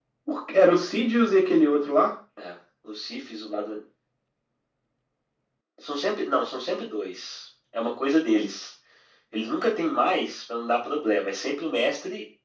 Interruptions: none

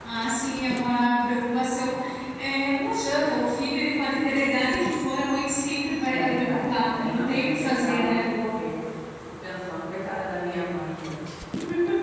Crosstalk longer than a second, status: present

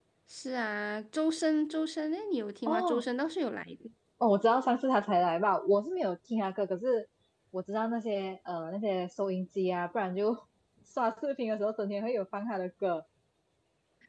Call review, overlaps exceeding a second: none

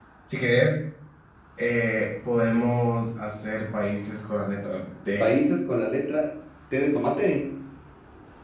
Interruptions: none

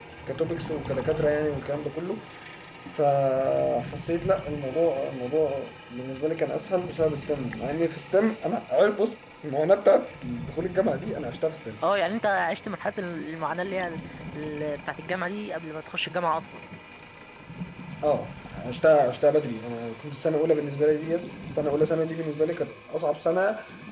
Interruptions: none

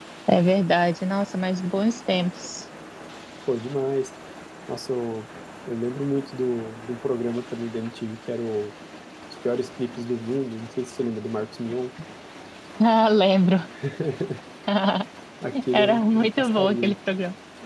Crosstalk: present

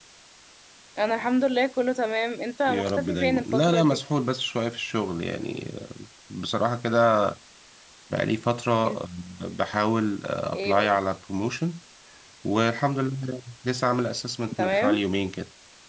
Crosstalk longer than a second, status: present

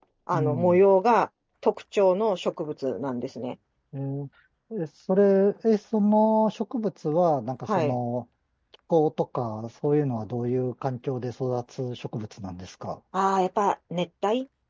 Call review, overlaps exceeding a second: none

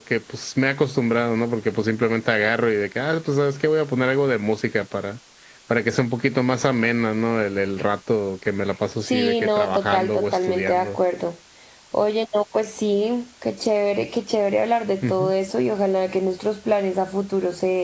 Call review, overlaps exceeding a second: present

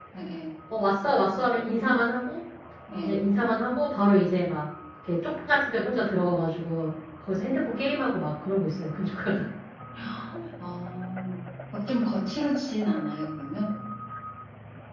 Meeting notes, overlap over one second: none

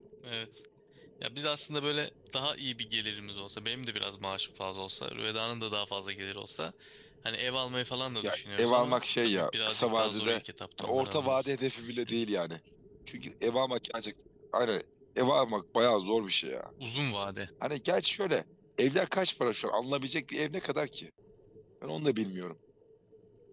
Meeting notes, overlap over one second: present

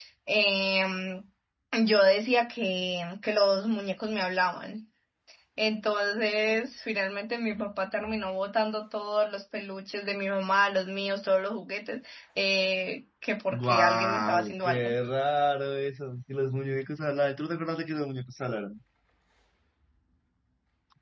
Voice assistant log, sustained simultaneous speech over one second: present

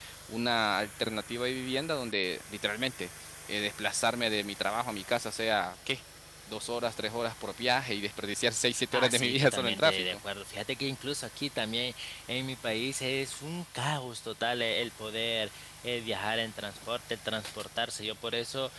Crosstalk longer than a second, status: present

